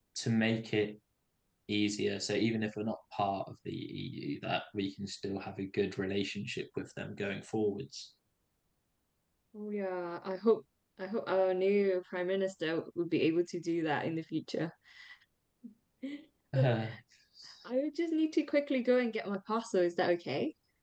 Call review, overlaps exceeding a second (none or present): none